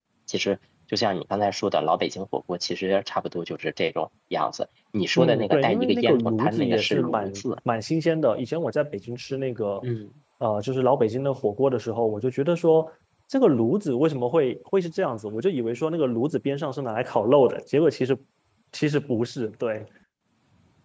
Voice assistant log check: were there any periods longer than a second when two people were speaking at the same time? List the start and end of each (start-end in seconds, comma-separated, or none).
5.2-7.4